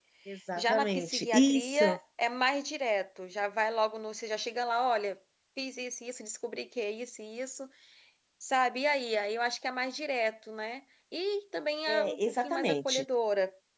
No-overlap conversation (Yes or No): No